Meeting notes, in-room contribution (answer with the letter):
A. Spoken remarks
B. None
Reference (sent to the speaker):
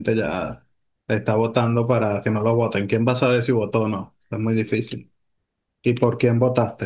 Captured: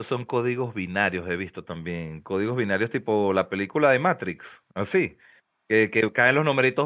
A